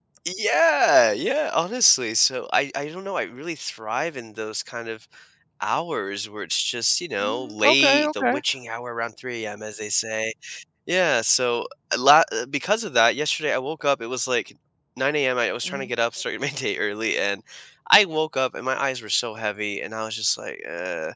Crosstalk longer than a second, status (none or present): present